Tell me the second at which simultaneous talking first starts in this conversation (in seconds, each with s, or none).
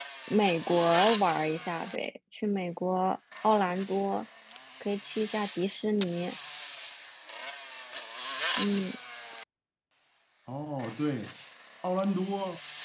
none